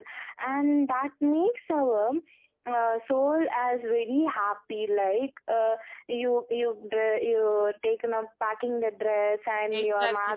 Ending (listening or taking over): taking over